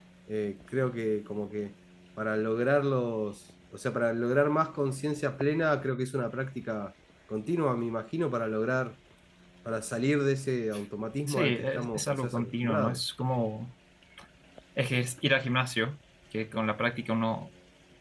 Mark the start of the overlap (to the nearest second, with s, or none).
11 s